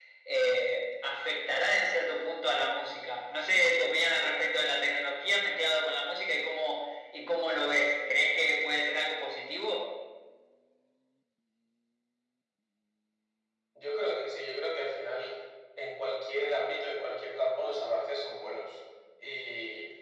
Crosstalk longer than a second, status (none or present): none